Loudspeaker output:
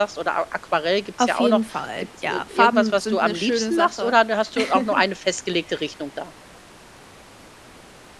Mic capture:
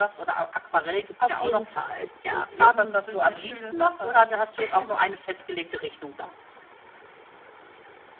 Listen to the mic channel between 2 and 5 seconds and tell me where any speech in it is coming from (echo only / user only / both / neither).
echo only